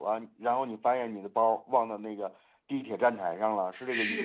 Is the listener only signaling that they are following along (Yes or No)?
No